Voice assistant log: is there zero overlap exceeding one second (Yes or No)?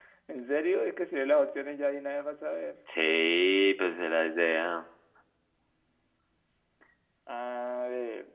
Yes